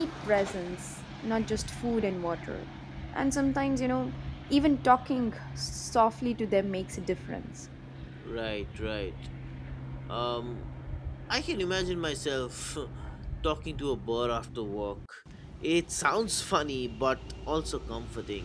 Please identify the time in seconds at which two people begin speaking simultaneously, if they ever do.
none

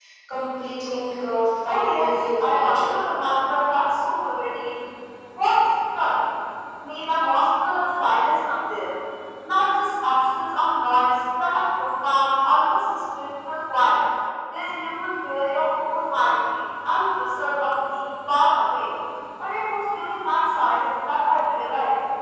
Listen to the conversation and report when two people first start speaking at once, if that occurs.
2 s

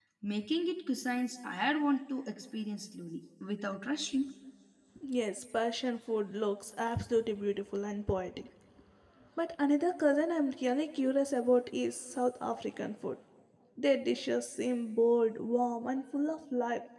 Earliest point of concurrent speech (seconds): none

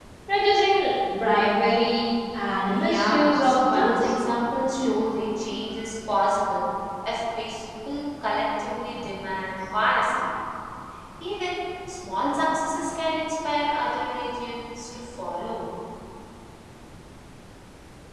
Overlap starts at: 3 s

